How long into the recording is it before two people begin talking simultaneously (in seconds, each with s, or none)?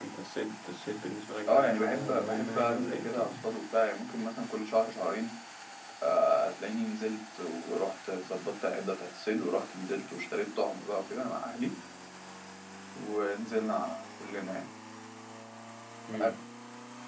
1.3 s